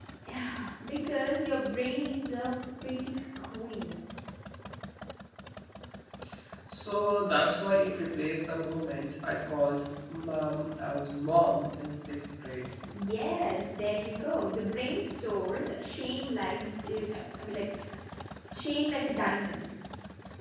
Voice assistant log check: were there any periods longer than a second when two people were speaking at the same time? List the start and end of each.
none

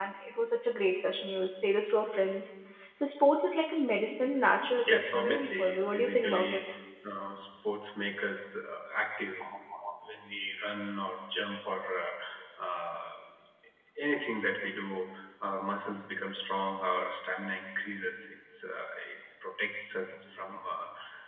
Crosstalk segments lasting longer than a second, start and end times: 4.8-6.6

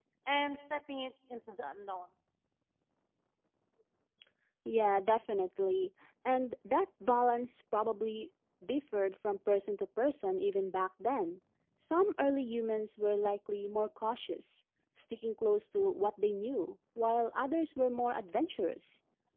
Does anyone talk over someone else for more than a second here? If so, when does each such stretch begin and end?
none

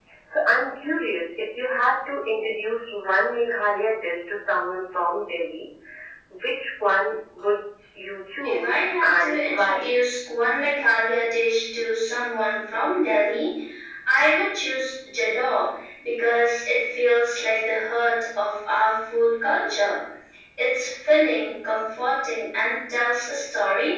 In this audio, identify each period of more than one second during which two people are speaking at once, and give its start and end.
8.4-9.9

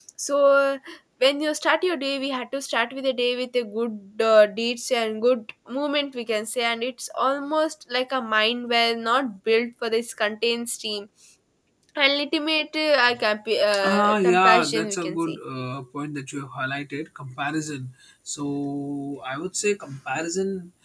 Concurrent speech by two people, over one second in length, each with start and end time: 13.8-15.4

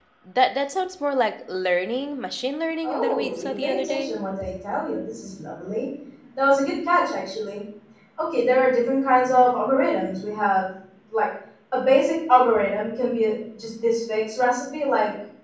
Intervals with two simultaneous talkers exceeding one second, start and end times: 2.8-4.1

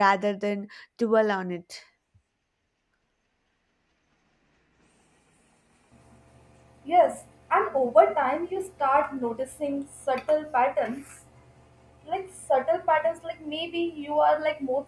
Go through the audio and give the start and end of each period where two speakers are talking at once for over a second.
none

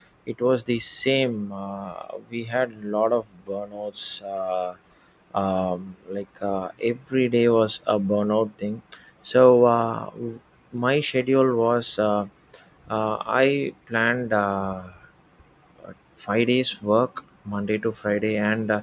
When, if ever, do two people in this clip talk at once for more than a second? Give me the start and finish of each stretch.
none

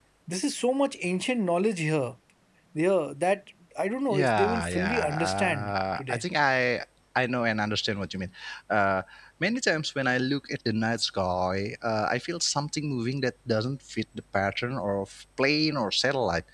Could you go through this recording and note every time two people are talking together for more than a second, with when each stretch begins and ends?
4.1-6.2

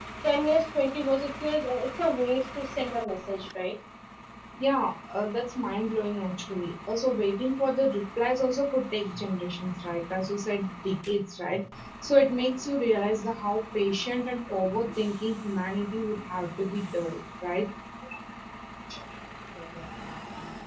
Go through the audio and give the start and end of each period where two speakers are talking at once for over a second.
none

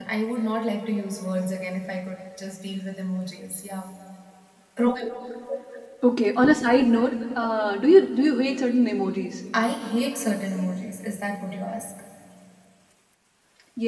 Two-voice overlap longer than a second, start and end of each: none

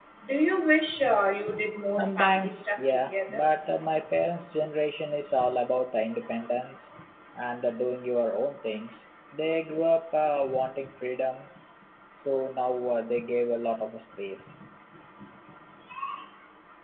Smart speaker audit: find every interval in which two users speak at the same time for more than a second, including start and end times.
2.0-3.4

